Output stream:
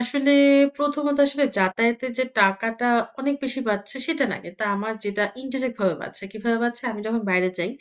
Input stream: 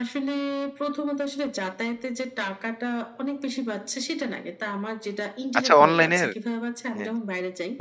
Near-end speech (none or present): present